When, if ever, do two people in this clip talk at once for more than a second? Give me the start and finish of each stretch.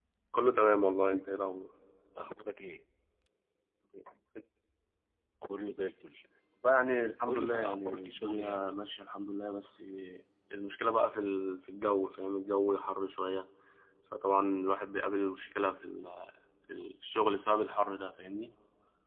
7.3-8.7

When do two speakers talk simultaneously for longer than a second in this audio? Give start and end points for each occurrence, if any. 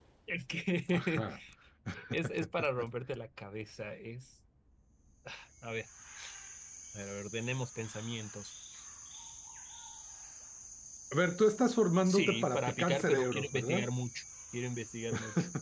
12.1-13.9

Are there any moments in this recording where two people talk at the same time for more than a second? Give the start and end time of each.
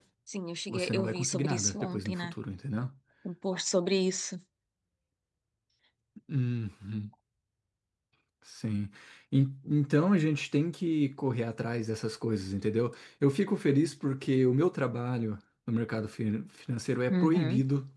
0.7-2.3

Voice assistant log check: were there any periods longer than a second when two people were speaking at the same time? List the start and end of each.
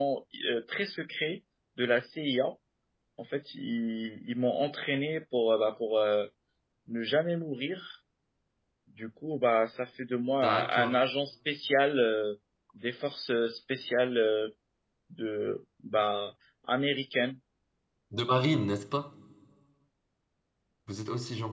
none

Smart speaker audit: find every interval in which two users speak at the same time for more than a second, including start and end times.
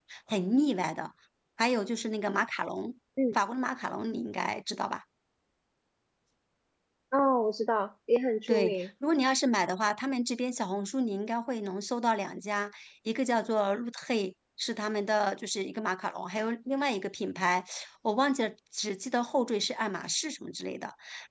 none

